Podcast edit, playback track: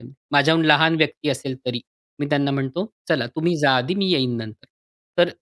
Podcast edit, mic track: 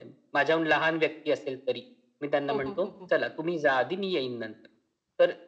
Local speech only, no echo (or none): हो, हो, हो, हो.